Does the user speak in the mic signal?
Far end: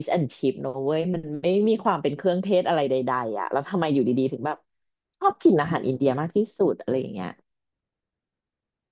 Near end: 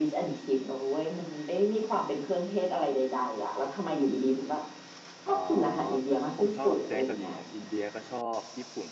Yes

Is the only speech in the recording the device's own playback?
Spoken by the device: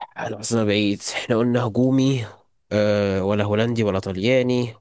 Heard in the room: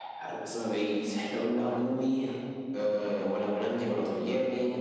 No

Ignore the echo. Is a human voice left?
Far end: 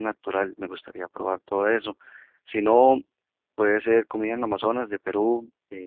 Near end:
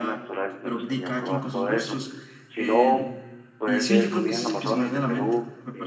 Yes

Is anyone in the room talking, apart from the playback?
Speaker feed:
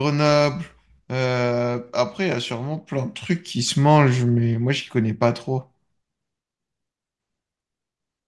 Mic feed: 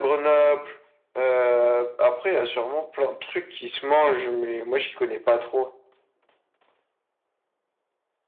No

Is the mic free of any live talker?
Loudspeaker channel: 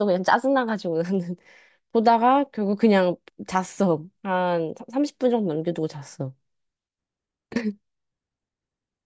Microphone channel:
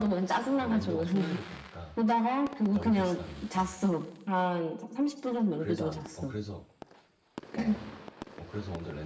No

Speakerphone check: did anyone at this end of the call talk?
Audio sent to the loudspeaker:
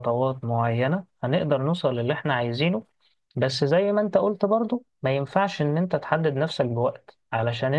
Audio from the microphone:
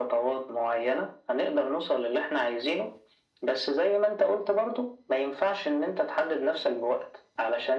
No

